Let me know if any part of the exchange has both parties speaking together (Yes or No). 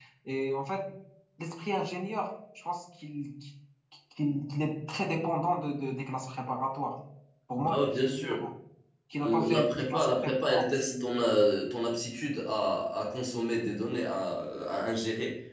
Yes